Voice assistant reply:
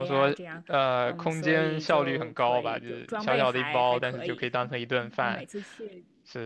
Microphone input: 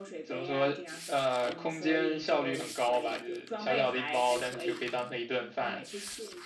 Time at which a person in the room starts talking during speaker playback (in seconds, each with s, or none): none